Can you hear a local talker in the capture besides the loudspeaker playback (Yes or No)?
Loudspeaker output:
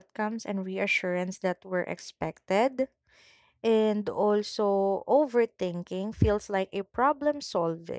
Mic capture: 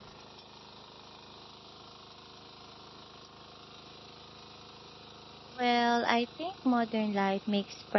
Yes